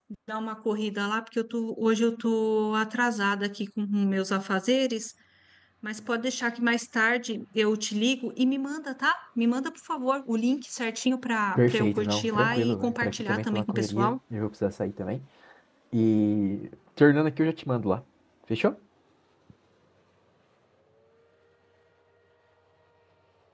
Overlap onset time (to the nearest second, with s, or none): 12 s